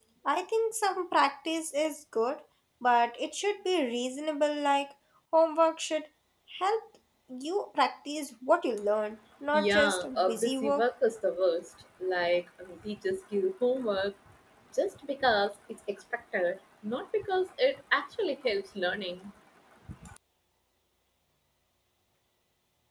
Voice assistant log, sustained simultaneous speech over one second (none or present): present